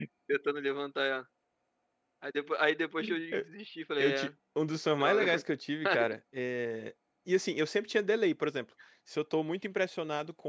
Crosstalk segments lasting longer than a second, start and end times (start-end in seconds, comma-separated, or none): none